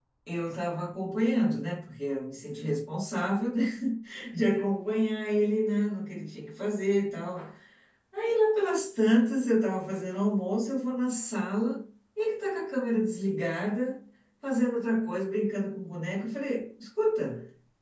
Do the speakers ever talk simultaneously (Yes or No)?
No